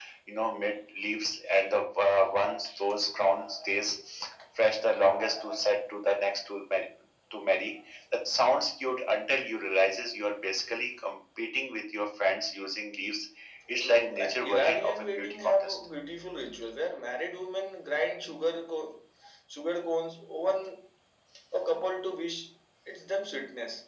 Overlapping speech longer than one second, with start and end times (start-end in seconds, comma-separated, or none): 13.8-15.8